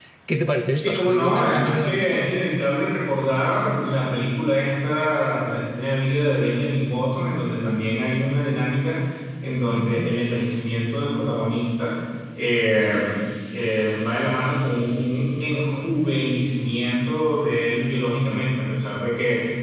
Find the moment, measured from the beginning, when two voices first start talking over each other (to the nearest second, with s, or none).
1 s